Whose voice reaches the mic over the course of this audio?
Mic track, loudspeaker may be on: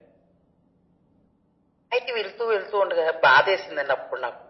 echo only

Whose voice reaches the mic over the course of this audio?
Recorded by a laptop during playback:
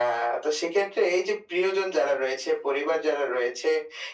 echo only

